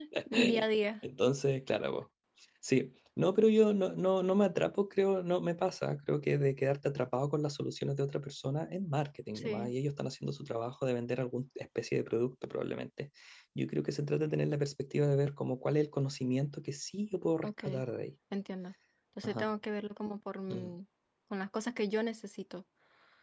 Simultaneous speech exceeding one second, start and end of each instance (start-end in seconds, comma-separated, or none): none